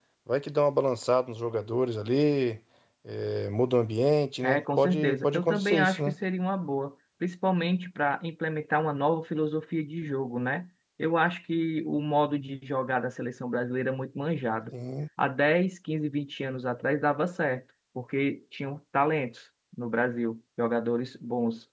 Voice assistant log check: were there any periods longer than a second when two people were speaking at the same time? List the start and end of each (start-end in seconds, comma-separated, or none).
4.4-6.2